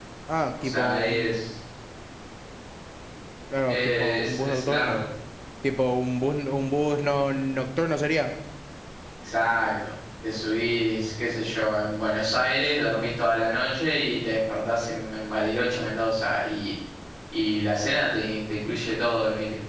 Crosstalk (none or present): present